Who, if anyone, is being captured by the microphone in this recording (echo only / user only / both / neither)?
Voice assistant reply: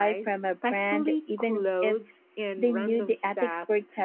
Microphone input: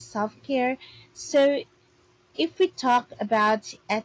user only